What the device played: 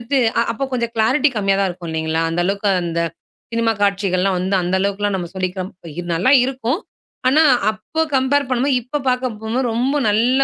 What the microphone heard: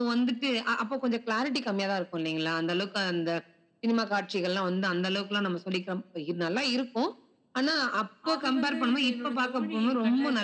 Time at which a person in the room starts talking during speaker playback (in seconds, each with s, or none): 8.3 s